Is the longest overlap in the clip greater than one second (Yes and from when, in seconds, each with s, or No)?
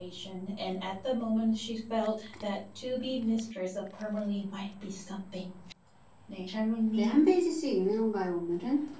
No